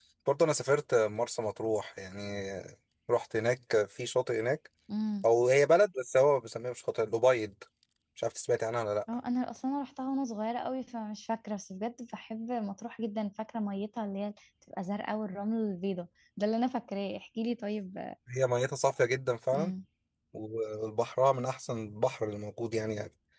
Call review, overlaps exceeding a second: none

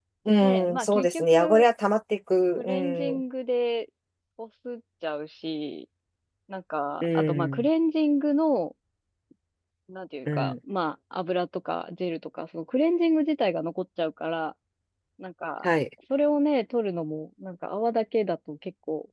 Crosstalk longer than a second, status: present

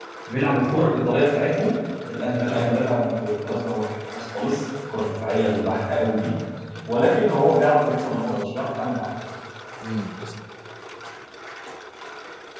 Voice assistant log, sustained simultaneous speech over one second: none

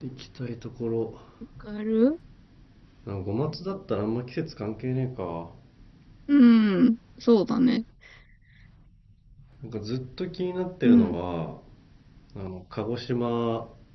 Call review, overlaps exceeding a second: none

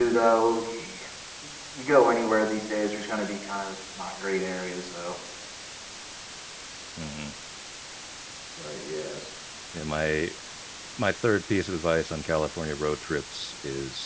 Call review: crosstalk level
none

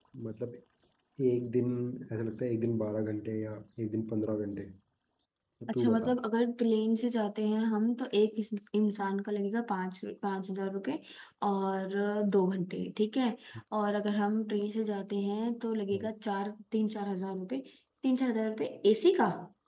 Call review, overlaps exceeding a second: none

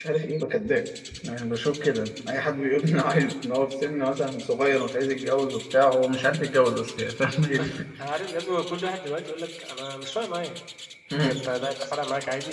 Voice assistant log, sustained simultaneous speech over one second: none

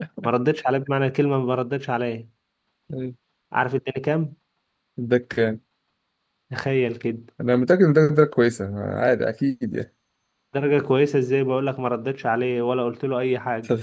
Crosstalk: none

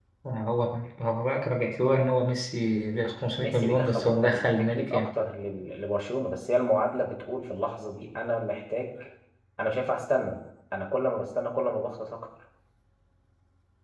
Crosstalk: present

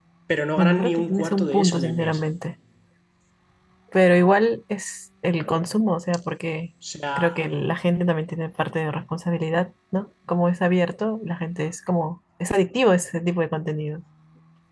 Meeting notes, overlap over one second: present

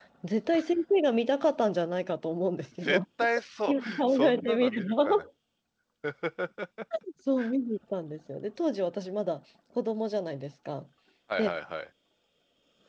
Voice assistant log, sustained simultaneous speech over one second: present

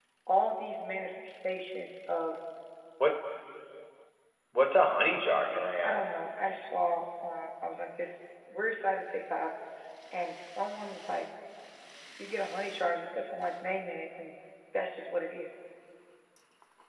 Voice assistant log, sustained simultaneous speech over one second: none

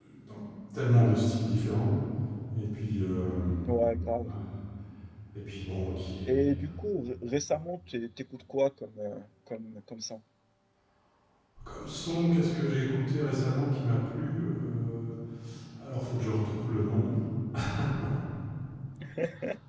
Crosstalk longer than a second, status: none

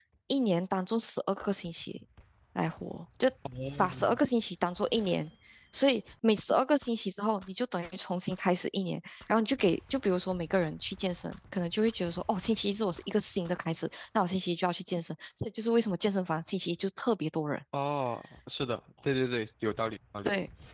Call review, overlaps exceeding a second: none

